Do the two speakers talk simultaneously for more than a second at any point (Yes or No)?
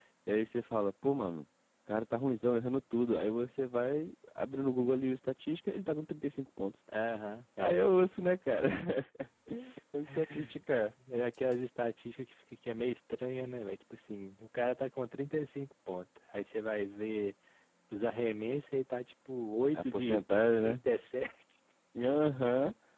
No